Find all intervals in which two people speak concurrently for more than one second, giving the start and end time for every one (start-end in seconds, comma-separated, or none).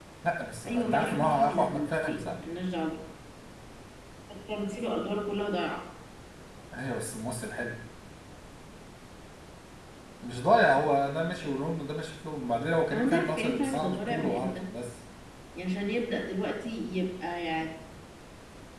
0.7-2.4, 12.9-14.6